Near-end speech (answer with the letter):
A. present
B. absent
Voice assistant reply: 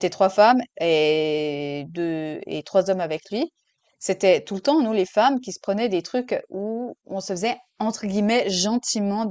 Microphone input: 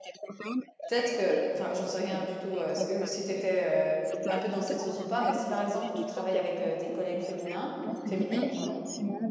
A